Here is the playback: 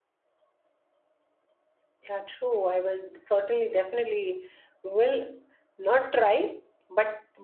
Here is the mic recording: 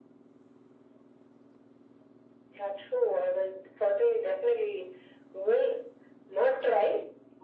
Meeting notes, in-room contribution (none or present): none